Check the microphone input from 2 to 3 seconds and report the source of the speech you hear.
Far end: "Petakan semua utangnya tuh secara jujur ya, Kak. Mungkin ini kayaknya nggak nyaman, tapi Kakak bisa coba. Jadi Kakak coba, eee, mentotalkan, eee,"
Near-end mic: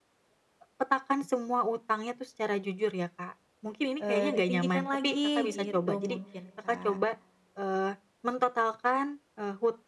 echo only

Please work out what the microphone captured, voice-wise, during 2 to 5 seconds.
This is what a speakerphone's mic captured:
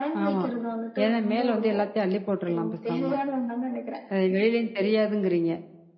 both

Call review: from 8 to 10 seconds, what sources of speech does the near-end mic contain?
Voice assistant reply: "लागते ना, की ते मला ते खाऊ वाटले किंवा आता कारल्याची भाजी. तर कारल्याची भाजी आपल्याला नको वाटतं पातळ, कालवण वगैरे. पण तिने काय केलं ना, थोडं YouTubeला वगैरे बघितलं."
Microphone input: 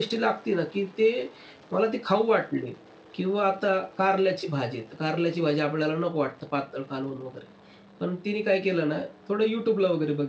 echo only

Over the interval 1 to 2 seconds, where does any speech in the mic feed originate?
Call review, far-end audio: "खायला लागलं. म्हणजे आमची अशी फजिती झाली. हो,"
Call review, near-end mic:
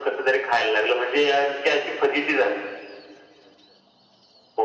echo only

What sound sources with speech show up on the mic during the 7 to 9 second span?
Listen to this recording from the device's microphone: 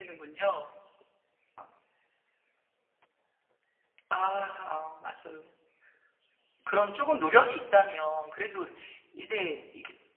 user only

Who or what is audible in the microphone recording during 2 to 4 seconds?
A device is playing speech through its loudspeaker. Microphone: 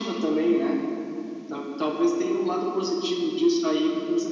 echo only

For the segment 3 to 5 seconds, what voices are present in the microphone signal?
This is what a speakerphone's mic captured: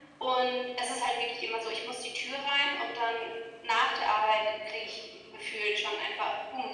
echo only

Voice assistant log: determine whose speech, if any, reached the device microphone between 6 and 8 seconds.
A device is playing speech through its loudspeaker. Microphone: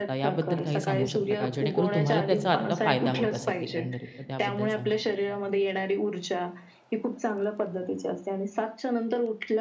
echo only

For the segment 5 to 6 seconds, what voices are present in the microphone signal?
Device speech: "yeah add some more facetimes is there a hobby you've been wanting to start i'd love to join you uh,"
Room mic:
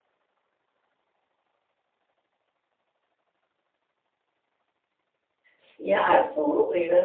user only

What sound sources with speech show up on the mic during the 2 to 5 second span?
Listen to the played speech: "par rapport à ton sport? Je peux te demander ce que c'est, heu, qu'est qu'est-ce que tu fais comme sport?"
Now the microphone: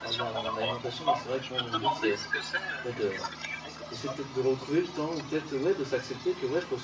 both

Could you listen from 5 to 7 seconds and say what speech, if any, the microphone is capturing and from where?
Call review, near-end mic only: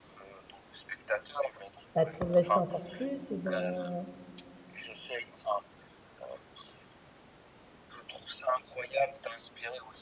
echo only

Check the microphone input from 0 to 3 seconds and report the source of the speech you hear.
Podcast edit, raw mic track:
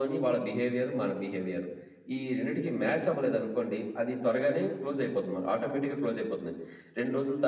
echo only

